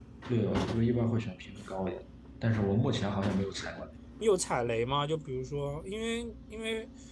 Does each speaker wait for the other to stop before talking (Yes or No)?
Yes